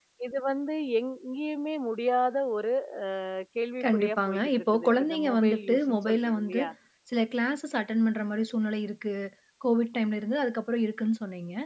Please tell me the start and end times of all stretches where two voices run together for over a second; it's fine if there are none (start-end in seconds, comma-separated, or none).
3.8-6.6